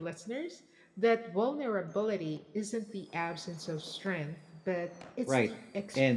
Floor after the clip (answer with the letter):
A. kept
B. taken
B